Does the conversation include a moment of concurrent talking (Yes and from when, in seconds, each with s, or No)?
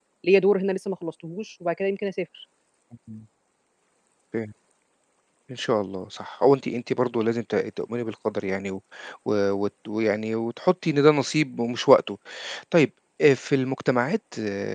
No